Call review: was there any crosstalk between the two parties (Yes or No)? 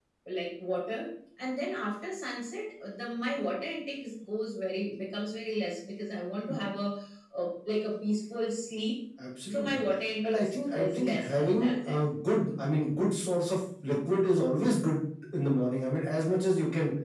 Yes